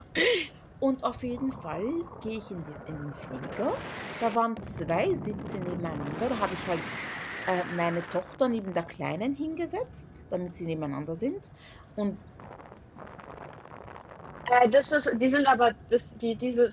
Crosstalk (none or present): none